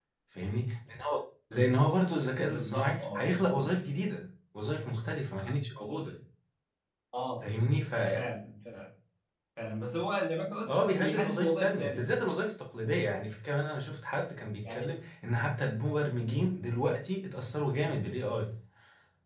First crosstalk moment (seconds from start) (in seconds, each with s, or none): 2.4 s